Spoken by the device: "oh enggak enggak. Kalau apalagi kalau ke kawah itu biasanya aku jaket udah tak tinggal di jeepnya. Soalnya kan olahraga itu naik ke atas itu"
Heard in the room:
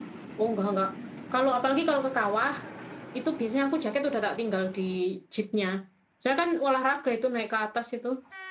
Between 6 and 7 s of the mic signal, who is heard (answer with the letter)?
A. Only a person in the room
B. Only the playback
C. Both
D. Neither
B